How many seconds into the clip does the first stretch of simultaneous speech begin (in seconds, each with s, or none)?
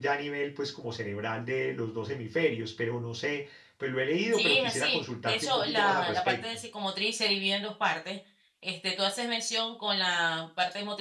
4.3 s